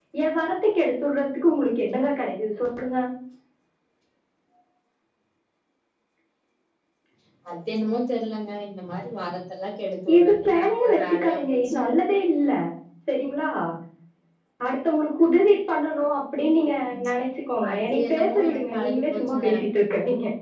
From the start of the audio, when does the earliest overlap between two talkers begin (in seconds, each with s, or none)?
10.2 s